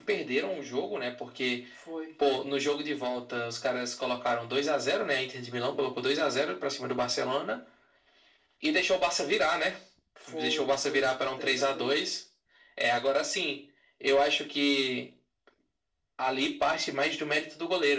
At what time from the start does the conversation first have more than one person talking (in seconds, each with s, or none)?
10.3 s